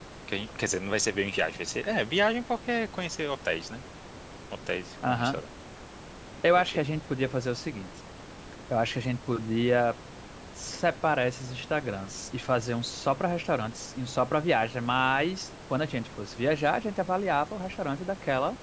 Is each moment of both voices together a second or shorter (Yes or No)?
Yes